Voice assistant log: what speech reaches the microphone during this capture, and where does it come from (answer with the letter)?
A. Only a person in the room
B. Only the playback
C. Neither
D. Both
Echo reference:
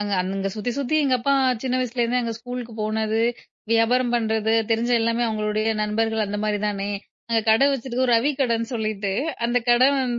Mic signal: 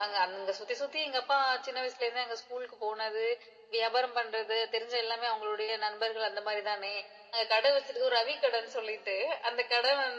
B